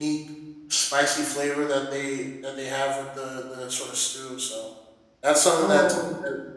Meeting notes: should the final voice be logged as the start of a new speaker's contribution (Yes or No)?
No